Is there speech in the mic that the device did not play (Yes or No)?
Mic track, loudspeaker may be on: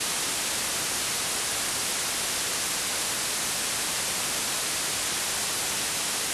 No